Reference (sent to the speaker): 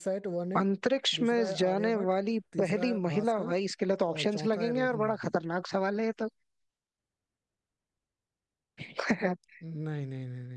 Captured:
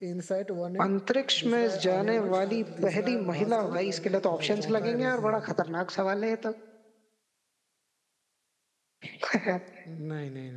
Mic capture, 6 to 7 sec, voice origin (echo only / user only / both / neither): echo only